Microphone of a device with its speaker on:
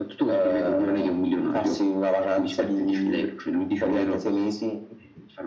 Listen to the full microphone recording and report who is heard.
echo only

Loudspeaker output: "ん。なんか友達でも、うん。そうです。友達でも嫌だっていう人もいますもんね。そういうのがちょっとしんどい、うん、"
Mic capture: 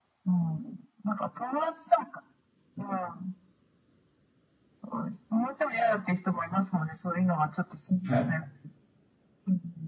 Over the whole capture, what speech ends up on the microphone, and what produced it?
both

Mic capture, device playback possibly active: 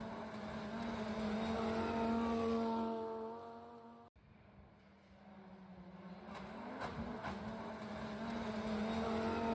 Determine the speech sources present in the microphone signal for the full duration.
neither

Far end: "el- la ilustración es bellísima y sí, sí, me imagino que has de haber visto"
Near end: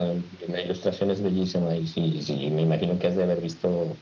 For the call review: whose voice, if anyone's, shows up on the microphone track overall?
echo only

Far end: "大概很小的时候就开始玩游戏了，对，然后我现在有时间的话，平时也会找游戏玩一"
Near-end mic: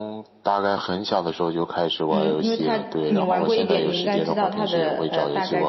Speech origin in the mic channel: both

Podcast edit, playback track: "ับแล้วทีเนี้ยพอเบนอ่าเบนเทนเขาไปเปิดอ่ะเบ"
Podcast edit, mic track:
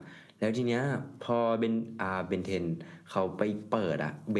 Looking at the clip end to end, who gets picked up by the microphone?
echo only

